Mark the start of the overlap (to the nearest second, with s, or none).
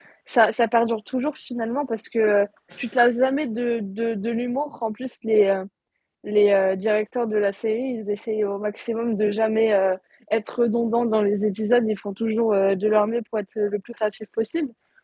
none